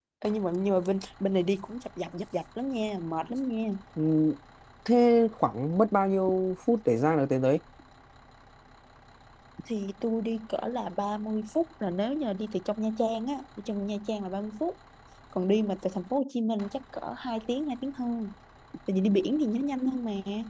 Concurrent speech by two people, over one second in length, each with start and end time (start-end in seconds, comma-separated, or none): none